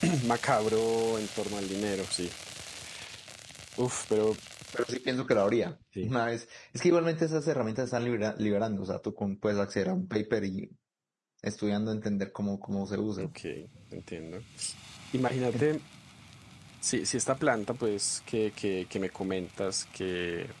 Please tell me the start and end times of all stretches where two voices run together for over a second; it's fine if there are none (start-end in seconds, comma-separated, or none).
none